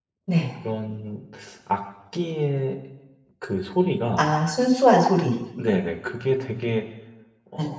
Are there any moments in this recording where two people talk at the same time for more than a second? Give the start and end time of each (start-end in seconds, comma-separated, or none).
none